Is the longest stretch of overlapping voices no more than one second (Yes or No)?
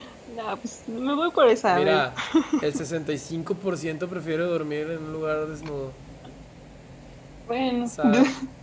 Yes